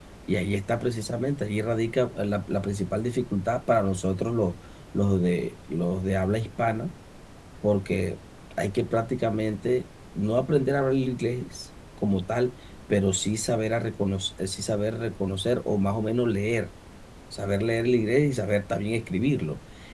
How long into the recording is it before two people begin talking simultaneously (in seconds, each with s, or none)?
none